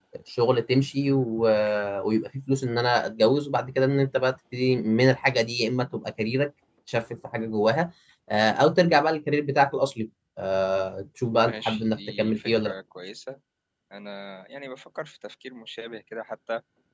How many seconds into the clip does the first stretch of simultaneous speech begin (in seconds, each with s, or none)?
11.4 s